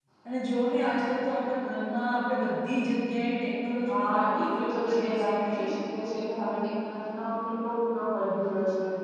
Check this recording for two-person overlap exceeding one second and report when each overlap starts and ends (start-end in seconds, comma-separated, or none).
3.9-5.7